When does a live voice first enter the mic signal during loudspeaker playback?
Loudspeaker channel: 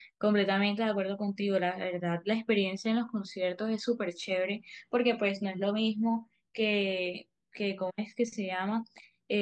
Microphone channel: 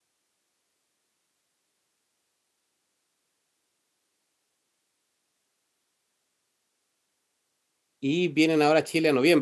8 s

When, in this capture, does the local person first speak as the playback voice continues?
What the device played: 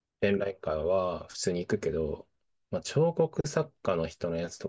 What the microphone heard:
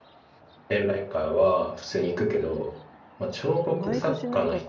4 s

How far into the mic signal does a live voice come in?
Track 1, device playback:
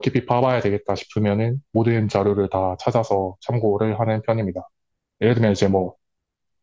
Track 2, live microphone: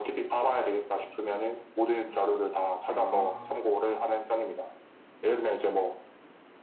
3 s

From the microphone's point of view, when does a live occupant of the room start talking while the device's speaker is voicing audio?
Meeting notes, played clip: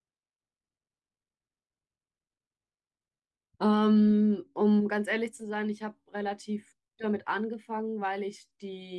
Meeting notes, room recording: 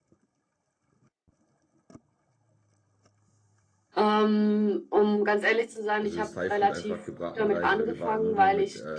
6 s

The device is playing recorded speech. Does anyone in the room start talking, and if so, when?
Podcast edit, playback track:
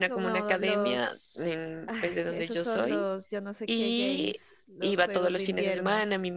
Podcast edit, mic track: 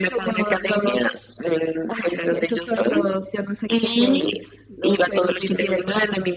none

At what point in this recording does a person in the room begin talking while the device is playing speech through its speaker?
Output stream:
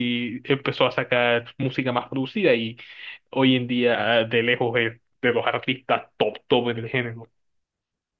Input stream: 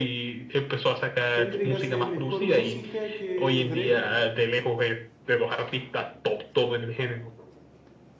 1 s

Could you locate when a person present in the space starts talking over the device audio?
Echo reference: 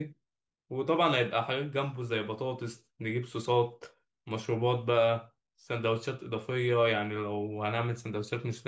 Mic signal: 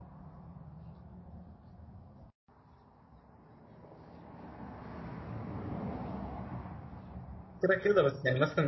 8 s

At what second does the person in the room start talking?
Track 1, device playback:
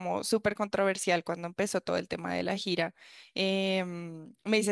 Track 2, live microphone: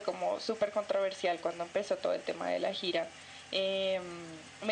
none

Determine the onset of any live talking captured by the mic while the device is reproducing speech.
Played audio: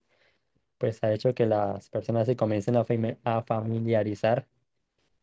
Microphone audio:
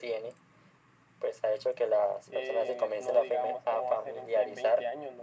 2 s

